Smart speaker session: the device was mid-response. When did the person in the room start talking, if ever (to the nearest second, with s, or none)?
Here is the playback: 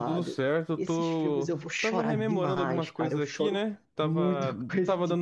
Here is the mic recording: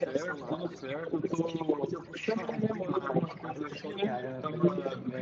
4 s